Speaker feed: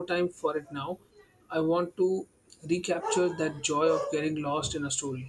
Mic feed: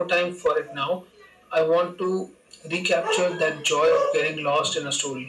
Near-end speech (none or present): none